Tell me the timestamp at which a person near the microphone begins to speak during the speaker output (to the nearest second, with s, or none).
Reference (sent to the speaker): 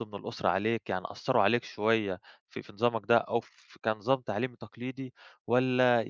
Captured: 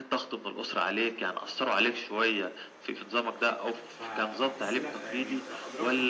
4 s